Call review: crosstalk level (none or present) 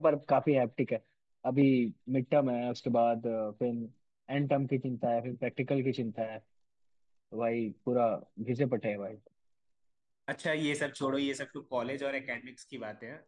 none